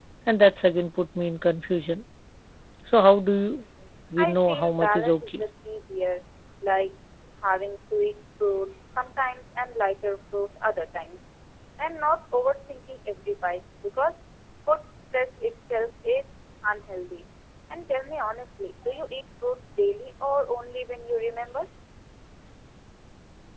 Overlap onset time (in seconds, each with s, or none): 4.2 s